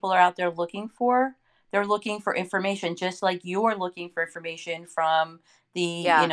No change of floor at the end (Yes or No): Yes